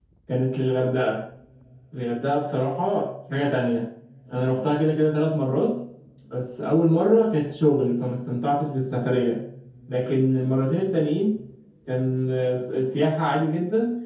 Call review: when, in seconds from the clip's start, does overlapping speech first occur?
none

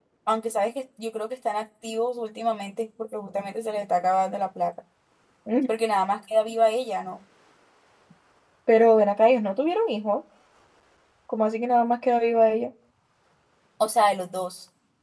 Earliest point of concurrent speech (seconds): none

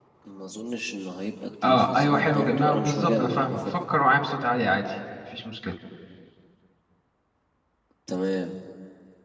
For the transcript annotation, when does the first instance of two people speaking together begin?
1.6 s

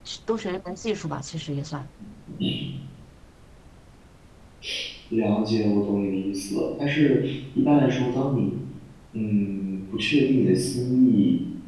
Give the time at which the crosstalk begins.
none

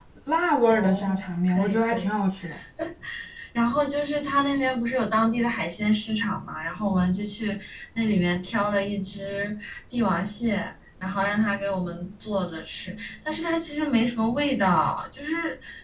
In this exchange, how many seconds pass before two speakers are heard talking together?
0.7 s

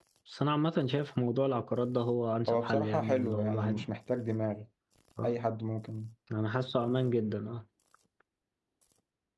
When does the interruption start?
2.5 s

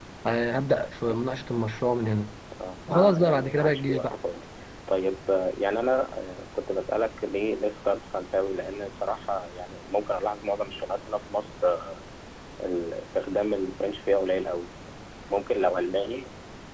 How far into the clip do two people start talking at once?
2.9 s

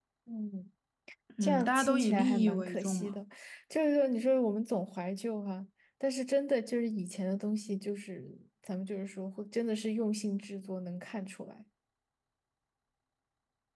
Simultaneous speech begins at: 1.4 s

